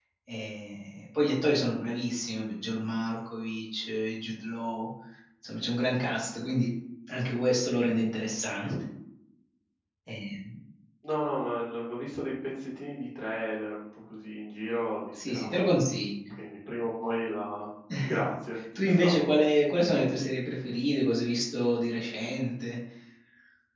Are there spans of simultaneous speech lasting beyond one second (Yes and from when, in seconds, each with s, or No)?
No